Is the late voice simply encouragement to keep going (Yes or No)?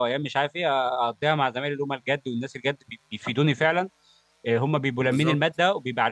Yes